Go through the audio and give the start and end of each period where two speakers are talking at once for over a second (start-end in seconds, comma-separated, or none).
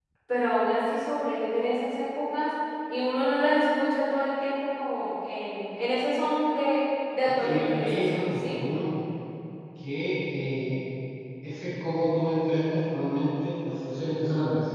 7.2-8.6